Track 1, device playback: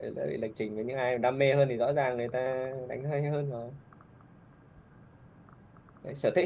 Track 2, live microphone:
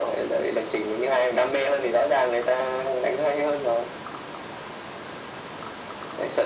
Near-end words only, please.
none

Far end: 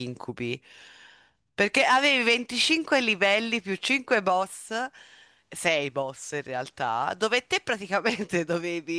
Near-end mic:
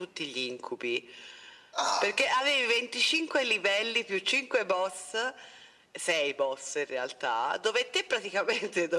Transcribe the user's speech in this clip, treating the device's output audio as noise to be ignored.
Ah,

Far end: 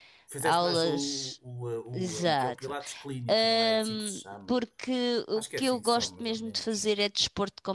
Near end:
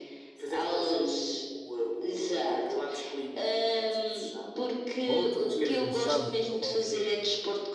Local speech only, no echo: outro de jump, ou lá o que é.

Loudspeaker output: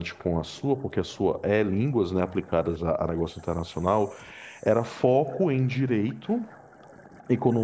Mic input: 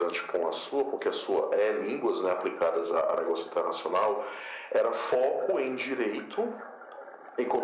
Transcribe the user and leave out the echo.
none

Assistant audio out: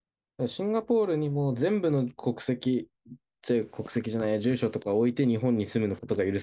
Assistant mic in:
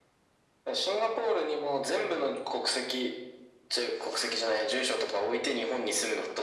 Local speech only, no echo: none

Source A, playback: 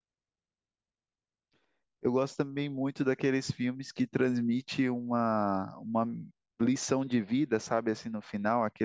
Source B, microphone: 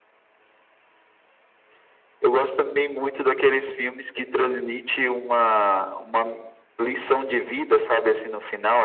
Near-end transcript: none

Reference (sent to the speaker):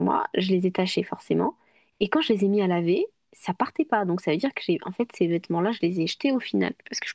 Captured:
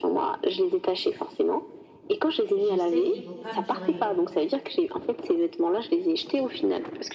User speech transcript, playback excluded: Je sais qu'ils vont pas me durer

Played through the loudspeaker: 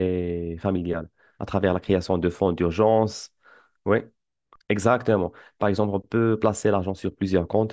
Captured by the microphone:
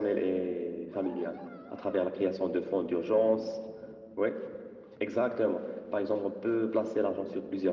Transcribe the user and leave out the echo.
none

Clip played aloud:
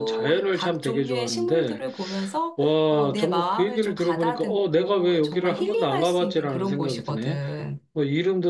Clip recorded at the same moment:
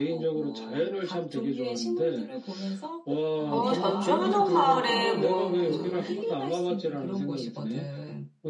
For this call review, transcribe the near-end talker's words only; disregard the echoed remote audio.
어, 전주 한옥마을에 뭐 그

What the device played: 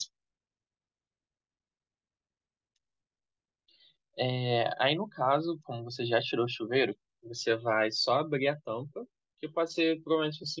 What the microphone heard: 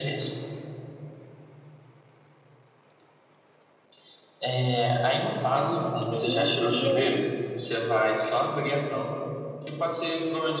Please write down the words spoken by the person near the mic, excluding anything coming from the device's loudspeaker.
ok. E aí?

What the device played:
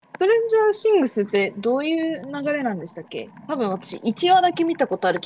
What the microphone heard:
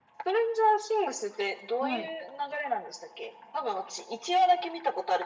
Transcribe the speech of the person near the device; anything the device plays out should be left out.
はい。

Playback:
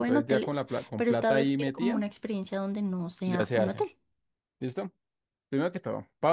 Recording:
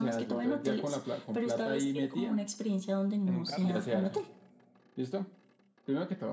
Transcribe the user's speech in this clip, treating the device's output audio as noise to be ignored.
en un carro.

